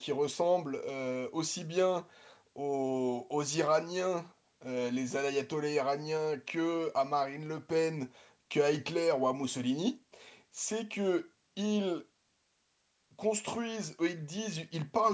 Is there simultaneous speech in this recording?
No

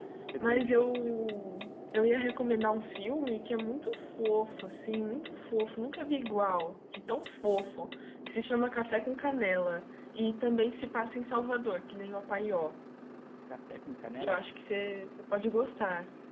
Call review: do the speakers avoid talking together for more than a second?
Yes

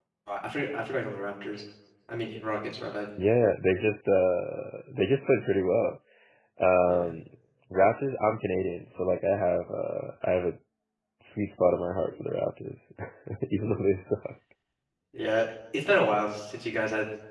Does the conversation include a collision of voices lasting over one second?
No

